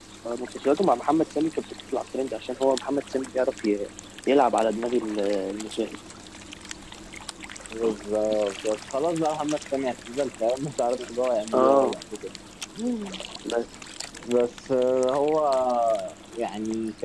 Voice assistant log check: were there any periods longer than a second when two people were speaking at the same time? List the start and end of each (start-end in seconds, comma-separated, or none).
none